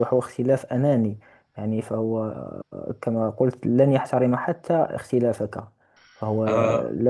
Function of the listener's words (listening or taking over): listening